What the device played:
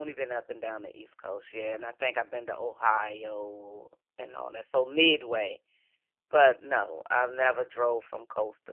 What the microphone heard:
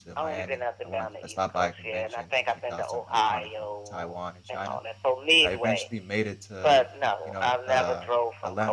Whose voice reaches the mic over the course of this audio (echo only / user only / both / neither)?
both